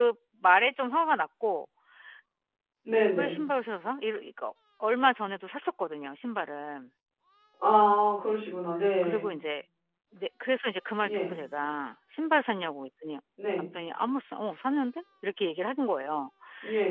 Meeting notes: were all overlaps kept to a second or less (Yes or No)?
Yes